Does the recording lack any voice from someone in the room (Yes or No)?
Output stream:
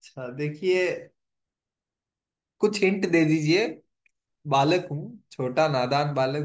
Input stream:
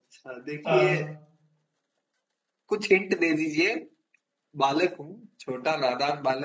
No